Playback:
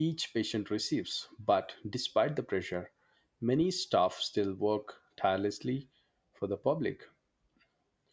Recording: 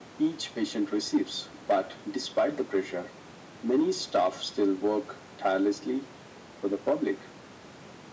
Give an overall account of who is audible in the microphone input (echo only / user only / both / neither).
echo only